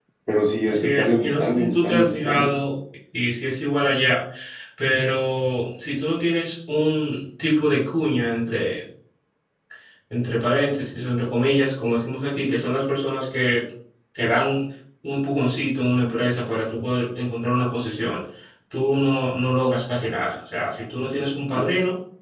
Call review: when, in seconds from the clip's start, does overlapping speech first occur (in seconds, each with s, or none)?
0.7 s